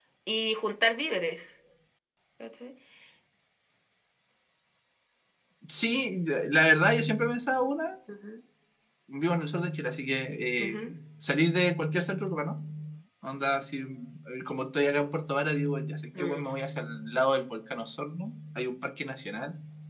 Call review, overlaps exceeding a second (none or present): none